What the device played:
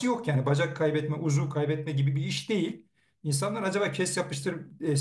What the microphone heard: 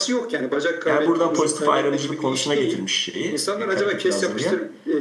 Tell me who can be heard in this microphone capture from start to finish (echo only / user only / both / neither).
both